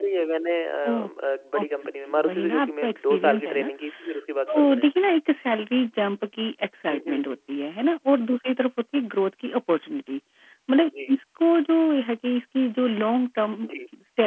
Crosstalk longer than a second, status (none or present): present